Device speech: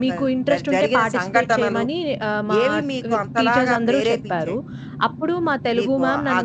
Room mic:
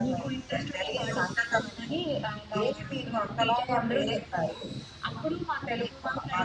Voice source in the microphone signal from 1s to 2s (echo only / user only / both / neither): echo only